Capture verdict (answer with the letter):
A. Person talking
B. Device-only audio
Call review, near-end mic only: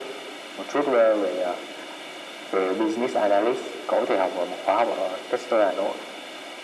B